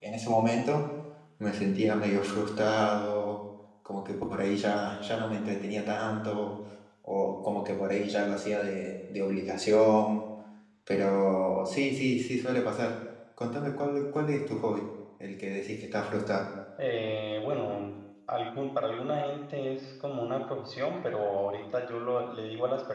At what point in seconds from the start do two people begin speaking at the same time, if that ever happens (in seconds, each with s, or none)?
none